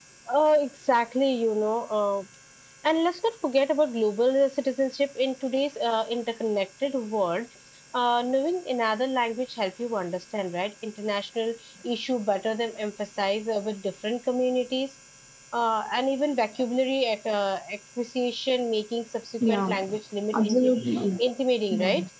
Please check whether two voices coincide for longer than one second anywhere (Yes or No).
No